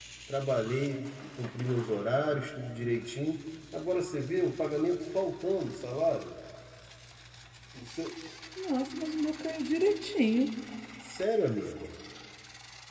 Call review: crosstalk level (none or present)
none